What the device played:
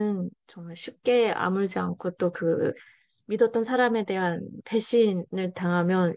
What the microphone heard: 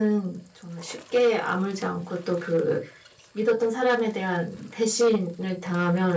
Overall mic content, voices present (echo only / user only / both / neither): echo only